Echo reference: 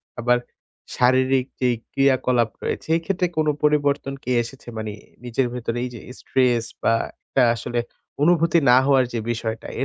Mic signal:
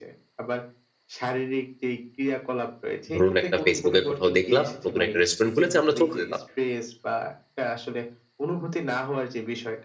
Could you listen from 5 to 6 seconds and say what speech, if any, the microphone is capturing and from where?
both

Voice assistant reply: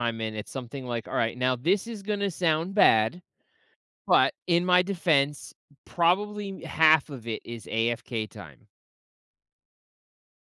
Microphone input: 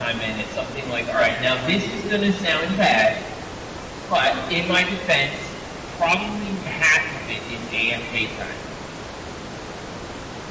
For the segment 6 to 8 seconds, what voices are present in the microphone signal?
echo only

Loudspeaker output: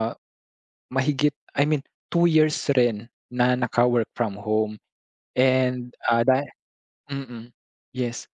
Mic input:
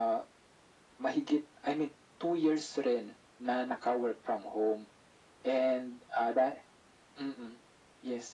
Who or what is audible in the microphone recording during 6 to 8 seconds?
echo only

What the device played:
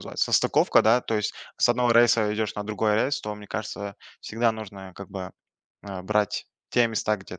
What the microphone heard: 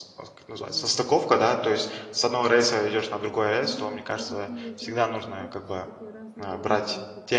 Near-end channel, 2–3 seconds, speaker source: echo only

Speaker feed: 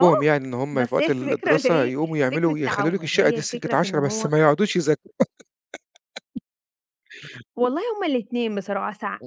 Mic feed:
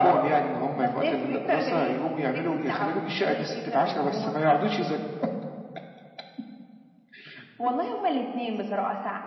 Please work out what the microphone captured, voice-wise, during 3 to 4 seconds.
echo only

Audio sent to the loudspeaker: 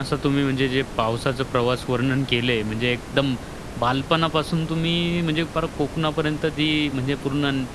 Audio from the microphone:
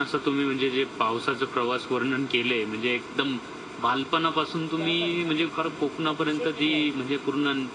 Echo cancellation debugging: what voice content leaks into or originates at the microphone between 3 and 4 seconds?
echo only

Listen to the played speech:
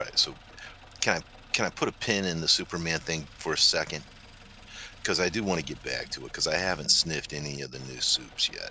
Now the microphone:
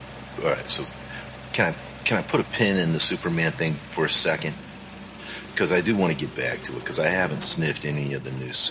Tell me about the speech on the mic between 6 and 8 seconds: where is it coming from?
echo only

